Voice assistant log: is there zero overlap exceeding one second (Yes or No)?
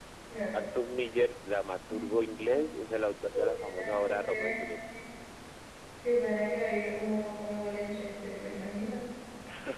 No